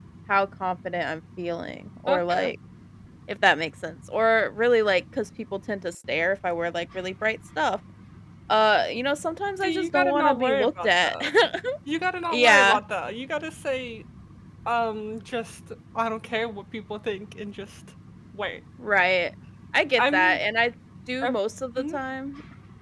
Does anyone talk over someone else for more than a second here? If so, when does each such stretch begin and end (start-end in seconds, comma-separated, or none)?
9.6-11.2